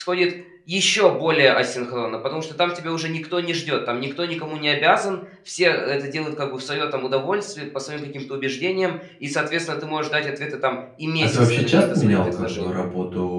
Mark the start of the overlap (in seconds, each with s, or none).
11.2 s